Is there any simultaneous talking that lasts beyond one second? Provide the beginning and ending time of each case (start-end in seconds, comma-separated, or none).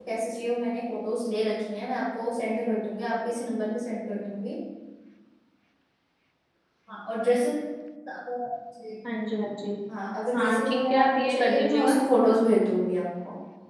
10.3-12.0